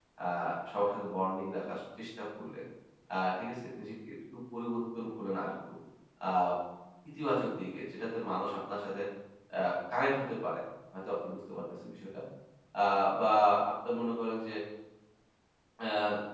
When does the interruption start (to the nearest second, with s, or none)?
none